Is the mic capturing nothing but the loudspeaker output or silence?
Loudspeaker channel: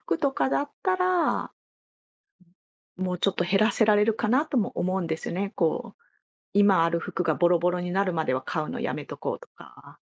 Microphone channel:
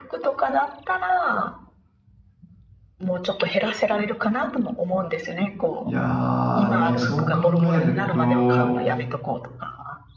No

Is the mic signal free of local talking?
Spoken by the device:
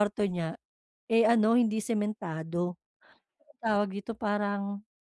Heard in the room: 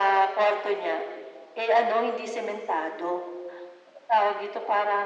Yes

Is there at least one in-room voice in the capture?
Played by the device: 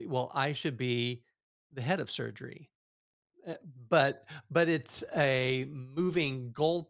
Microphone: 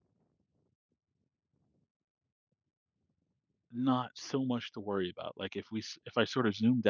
Yes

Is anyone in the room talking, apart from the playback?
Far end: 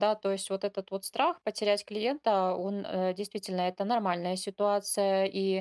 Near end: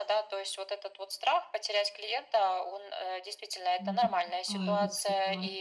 Yes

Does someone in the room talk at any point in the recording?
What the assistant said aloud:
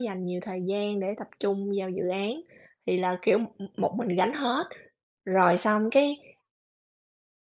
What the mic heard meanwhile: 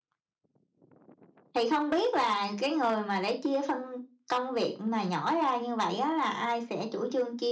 Yes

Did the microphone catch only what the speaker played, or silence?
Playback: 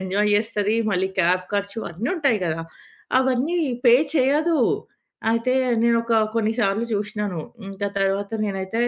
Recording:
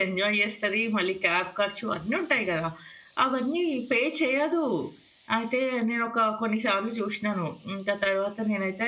Yes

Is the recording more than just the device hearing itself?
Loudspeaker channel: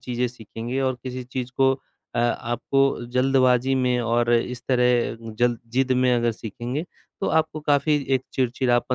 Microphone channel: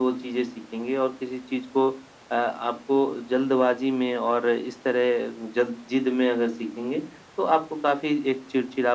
No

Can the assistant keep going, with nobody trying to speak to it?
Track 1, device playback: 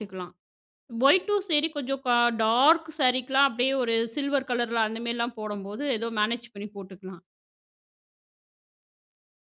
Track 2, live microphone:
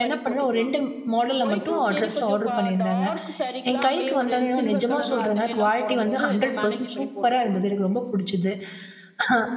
No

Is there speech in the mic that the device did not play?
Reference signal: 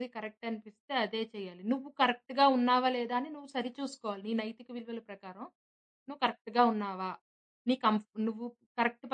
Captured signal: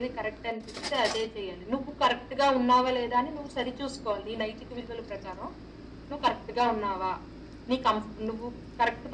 No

